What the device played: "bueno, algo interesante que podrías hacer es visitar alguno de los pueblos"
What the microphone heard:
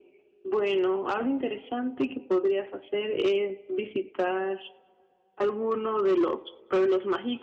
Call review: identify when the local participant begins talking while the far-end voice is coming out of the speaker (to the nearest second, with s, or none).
none